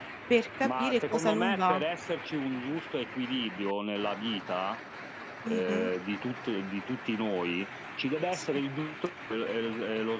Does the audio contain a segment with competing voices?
Yes, from 0.6 s

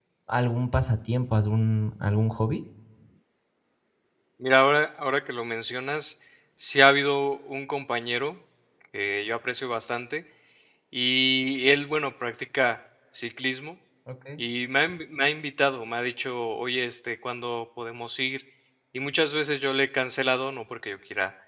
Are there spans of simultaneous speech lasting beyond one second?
No

